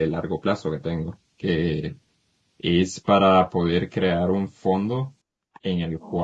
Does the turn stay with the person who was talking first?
Yes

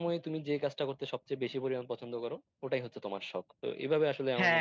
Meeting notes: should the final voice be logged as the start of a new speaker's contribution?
Yes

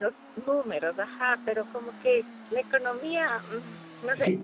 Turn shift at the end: Yes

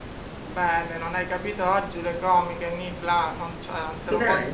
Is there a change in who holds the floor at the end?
No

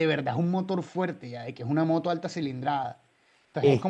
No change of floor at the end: Yes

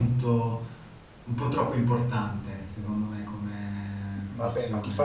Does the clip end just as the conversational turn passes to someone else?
Yes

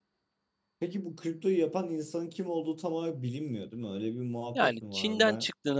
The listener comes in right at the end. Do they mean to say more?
Yes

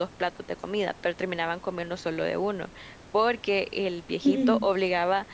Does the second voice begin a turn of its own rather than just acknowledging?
No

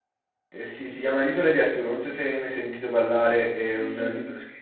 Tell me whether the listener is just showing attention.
Yes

